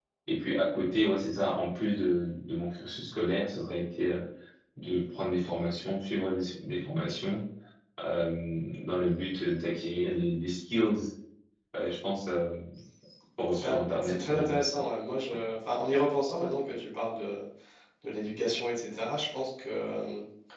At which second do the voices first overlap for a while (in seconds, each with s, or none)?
13.5 s